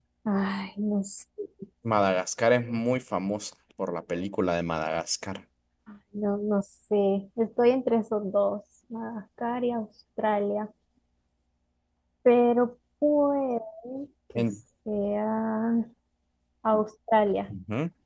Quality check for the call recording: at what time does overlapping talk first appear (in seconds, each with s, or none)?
none